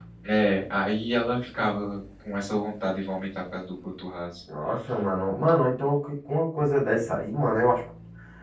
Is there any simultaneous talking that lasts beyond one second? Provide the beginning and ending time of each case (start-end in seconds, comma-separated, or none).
none